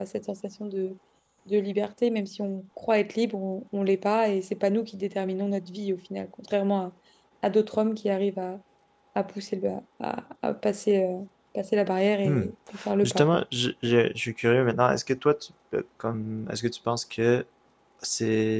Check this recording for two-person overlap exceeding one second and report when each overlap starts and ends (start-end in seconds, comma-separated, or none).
none